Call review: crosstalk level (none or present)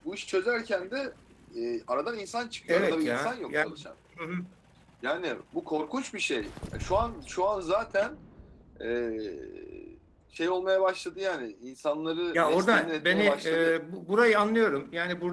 present